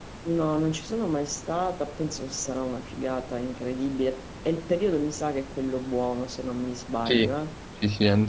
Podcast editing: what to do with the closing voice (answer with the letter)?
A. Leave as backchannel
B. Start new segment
B